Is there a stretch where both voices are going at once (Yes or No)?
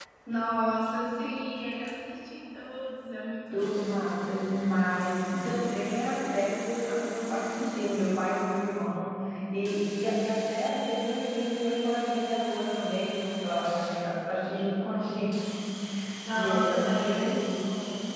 Yes